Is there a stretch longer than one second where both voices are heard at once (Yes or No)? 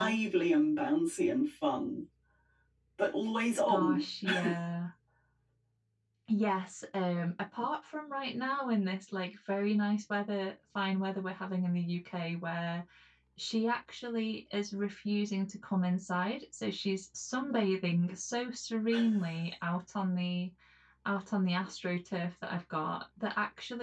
No